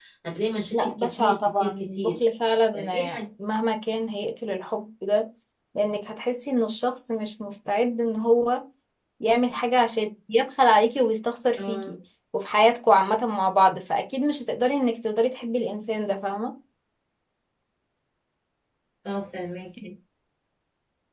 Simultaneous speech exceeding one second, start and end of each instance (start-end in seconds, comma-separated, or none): 0.7-2.1